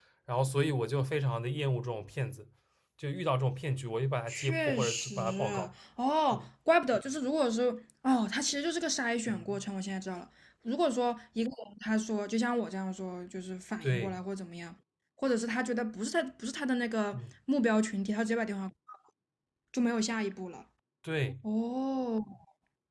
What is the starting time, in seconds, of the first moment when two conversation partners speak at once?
4 s

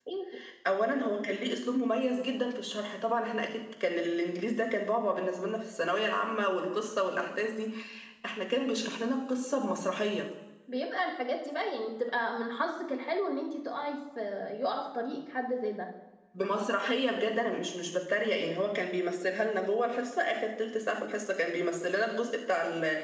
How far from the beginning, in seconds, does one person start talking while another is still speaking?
none

